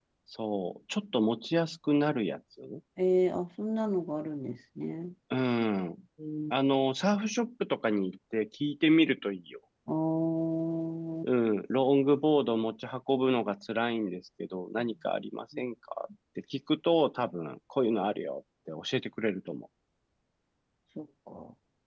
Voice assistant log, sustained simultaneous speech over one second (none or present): none